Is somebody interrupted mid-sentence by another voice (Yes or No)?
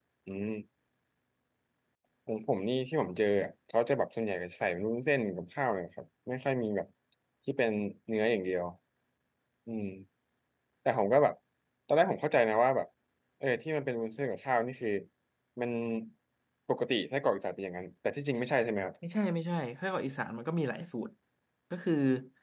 No